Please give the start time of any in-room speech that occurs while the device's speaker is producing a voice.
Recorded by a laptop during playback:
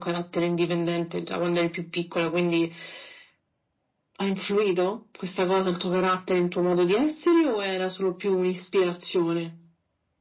none

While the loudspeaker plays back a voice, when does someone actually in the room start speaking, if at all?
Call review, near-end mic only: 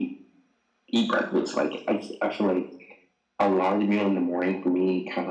none

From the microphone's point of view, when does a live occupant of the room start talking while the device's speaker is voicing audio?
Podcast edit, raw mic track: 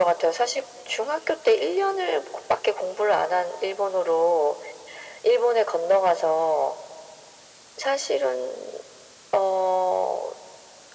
none

